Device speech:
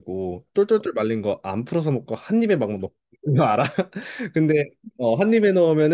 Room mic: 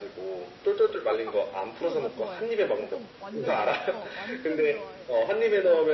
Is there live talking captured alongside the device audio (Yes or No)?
Yes